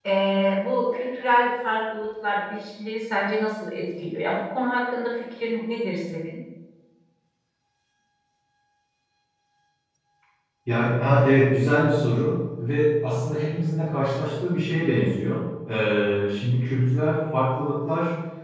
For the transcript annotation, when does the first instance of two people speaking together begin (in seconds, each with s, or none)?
none